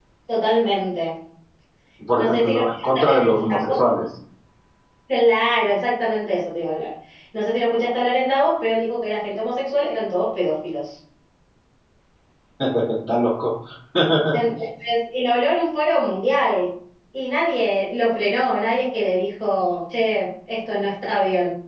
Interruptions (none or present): present